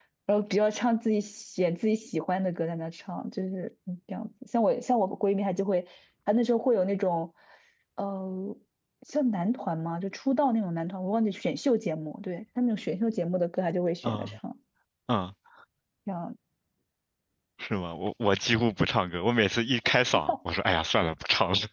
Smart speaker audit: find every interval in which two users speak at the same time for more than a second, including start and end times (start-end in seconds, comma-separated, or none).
none